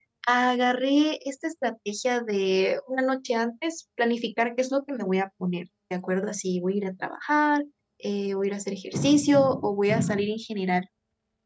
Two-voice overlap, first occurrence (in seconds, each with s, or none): none